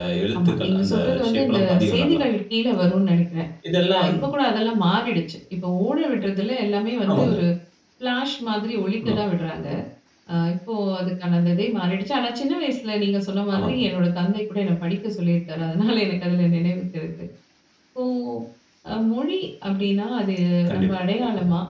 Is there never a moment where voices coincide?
No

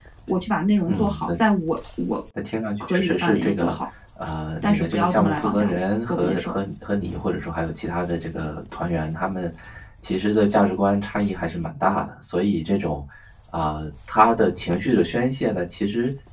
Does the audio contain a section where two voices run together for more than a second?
Yes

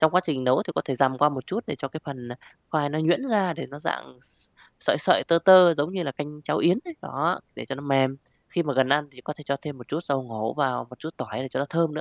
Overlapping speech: No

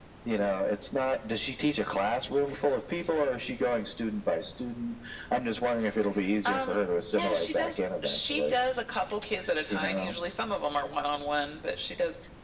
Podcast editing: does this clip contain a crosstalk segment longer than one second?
Yes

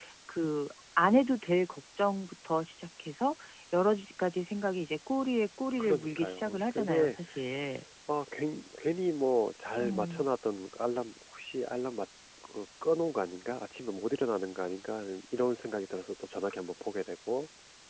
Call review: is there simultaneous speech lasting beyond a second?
Yes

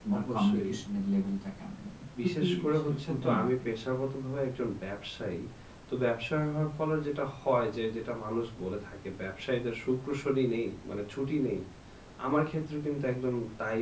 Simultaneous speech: Yes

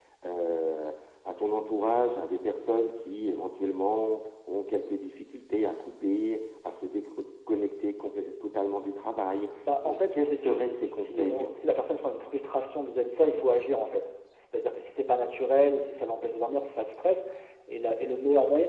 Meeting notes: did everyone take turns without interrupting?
No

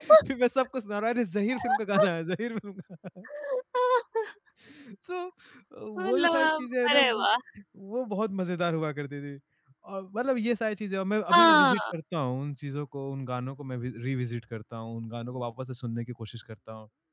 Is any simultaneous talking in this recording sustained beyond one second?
Yes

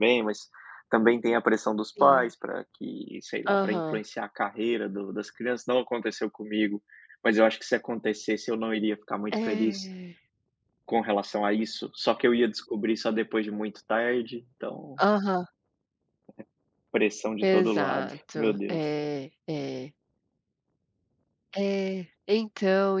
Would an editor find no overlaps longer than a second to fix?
No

